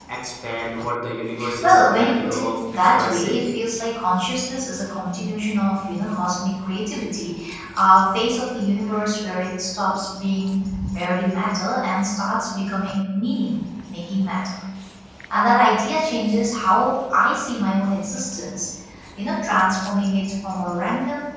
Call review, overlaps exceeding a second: present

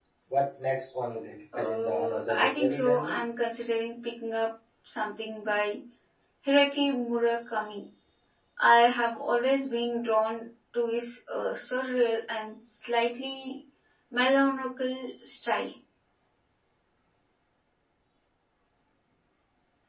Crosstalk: present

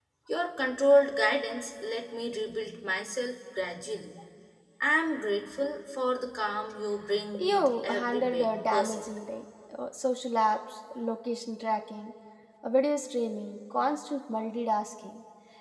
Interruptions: present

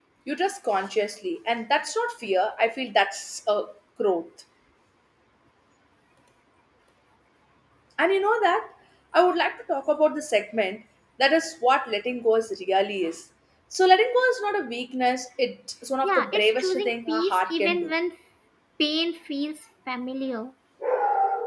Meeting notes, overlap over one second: present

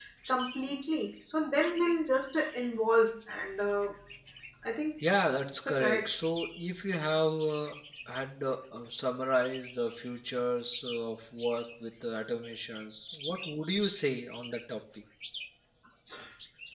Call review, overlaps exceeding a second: none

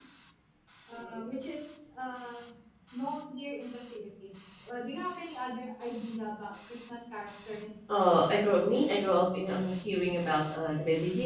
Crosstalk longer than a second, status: none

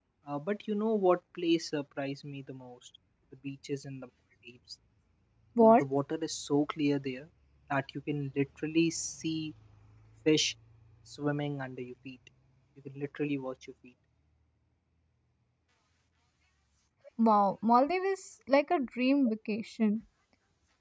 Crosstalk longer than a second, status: none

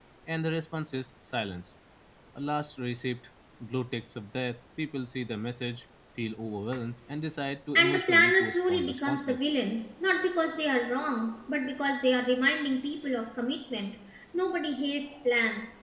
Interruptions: present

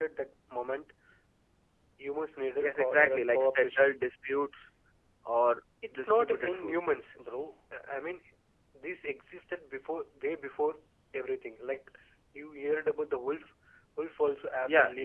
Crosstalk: present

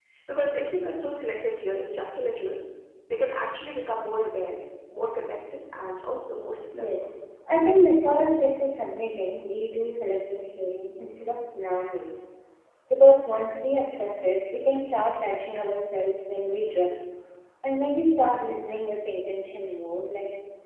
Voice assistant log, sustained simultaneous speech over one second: none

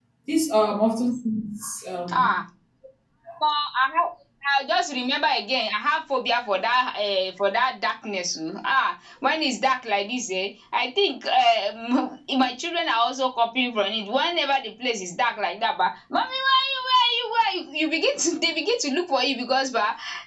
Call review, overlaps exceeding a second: none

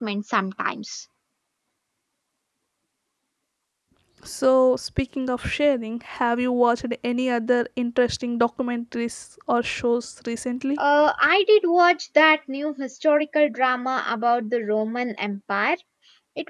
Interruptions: none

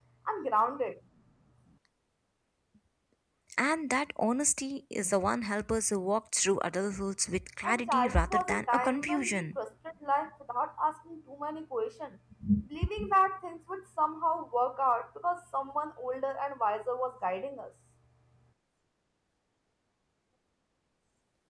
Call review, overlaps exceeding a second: present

